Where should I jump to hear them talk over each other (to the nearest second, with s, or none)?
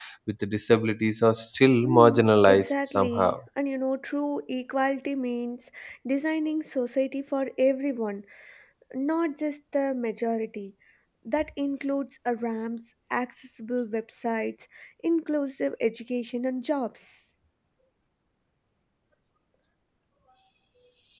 2 s